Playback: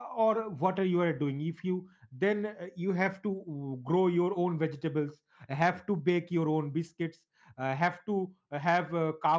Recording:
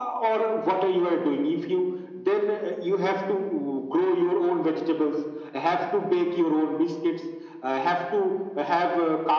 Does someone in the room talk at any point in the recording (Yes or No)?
No